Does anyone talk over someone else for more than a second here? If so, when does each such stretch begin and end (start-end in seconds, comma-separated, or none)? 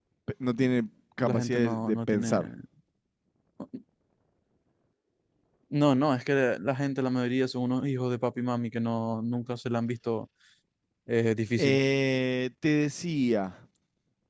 1.2-2.5